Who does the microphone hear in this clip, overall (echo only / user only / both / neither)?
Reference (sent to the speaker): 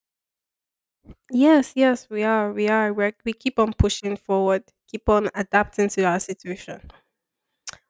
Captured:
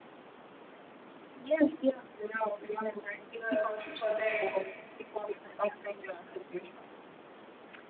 both